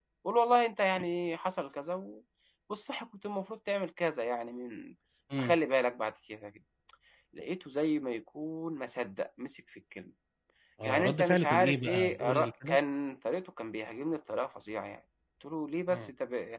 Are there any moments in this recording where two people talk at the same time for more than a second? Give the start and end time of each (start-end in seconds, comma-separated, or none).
10.8-12.8